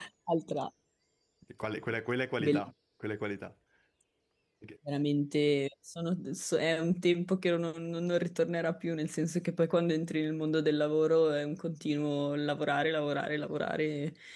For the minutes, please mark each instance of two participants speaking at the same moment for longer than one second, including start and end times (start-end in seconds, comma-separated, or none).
none